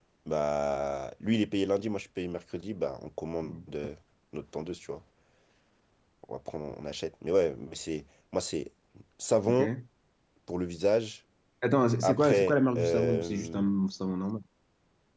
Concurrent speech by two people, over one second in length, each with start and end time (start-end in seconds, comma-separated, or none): 12.0-13.6